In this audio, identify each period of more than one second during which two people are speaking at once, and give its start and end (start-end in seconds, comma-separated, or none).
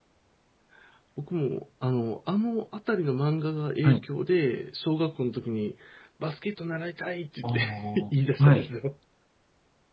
7.4-8.7